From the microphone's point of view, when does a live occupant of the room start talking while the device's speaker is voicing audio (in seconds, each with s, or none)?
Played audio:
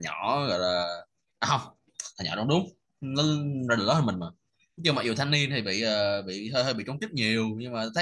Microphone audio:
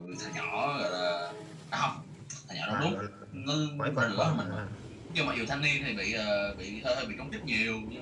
2.7 s